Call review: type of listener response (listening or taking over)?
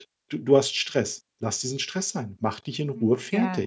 taking over